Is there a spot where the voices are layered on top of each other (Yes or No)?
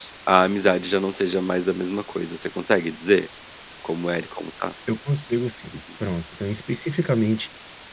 No